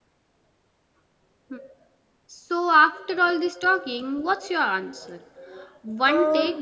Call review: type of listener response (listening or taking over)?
listening